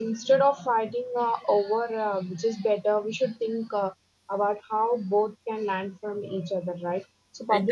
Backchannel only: Yes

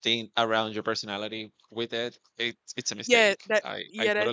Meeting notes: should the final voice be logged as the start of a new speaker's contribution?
Yes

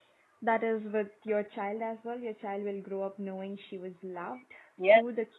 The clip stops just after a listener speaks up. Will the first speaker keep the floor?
No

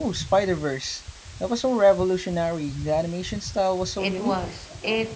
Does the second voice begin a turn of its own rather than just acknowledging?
Yes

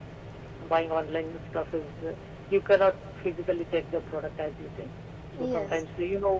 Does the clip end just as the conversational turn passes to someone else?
No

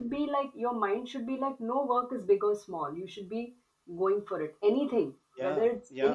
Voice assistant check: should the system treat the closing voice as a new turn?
No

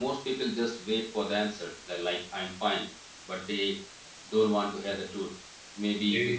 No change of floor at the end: Yes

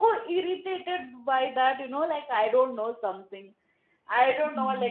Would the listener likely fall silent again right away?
Yes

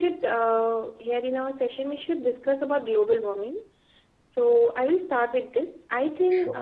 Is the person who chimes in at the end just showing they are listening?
Yes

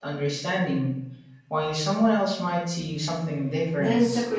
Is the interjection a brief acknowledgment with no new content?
No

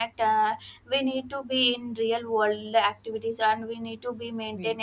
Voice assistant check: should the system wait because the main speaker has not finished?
Yes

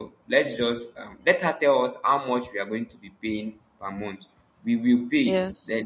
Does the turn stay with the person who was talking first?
Yes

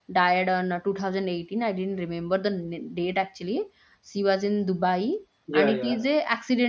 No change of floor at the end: Yes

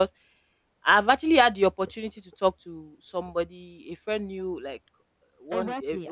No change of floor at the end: No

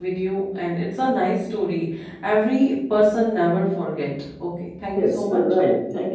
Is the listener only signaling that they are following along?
No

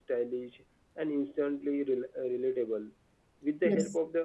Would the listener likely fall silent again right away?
Yes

